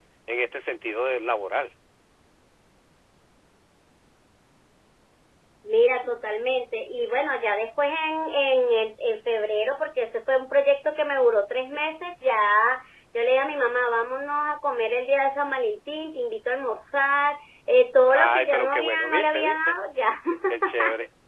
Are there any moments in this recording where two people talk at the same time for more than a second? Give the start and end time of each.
18.1-19.8

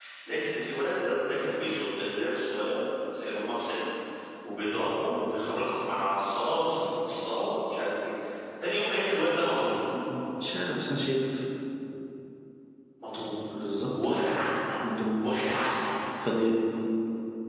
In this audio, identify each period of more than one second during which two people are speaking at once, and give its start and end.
none

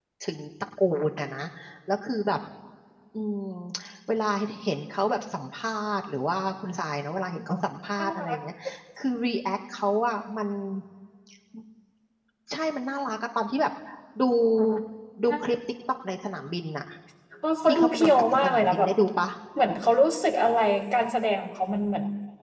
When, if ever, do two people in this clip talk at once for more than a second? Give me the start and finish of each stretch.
17.6-18.9

